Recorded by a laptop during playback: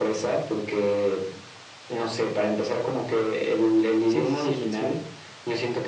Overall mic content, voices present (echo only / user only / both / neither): both